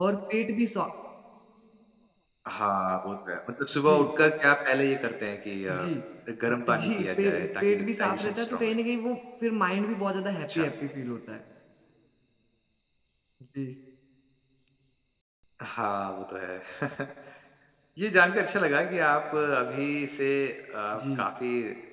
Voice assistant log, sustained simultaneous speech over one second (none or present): present